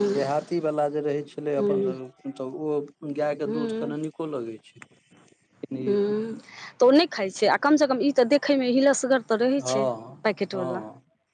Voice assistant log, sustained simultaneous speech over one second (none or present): none